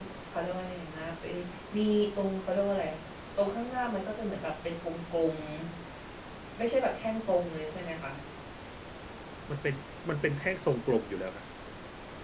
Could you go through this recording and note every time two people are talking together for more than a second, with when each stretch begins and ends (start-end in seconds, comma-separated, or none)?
none